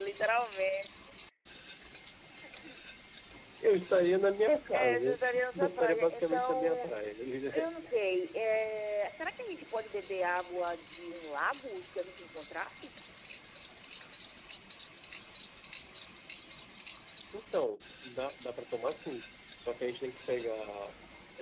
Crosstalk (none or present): present